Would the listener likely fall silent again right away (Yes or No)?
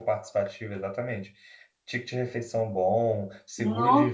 Yes